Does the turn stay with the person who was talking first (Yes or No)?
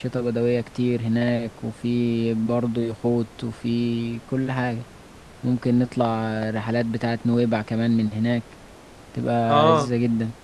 No